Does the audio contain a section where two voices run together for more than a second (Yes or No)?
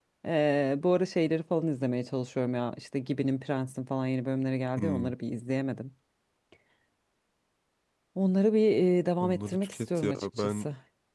Yes